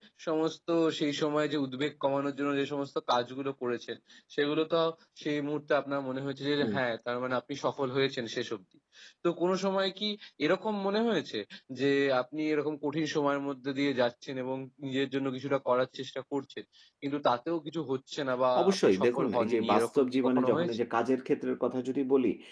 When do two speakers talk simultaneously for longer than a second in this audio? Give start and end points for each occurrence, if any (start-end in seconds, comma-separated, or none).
18.6-20.8